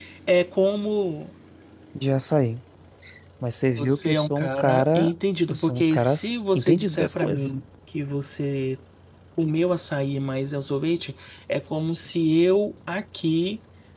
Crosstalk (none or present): present